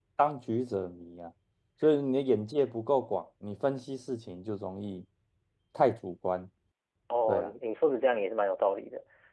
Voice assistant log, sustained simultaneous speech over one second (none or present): none